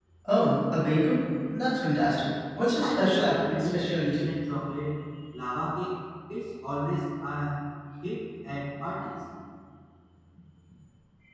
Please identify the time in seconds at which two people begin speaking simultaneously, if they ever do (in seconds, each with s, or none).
2.8 s